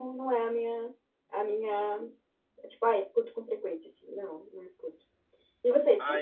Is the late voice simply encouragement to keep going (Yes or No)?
No